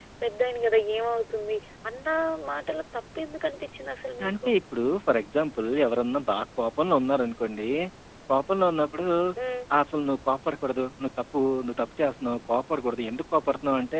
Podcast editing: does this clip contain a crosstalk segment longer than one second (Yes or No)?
No